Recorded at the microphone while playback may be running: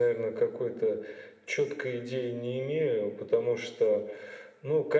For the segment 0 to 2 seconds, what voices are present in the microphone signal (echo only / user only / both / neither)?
echo only